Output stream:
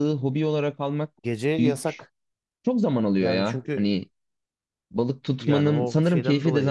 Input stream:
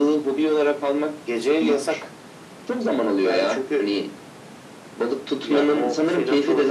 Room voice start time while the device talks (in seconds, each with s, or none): none